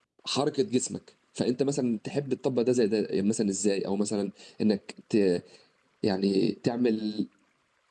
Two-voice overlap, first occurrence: none

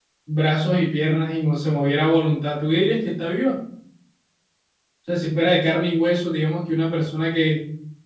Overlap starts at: none

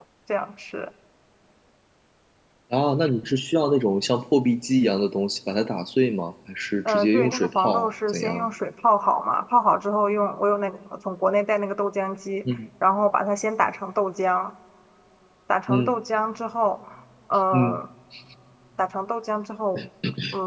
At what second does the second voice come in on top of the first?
6.8 s

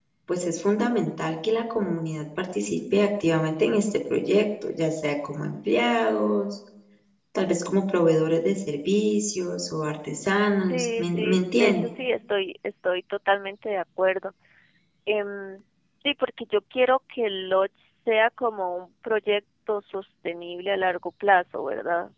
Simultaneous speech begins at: 10.6 s

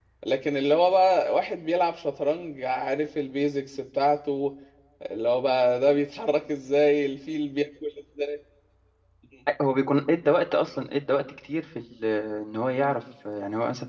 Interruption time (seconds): none

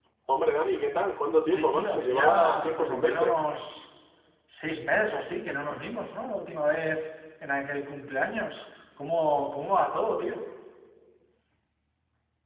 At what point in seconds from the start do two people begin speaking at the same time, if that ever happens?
1.4 s

